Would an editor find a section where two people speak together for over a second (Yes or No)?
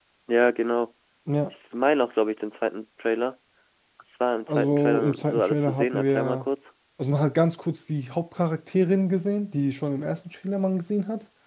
Yes